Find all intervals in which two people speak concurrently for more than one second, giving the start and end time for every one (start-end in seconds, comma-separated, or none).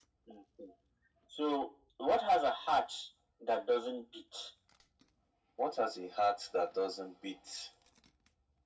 none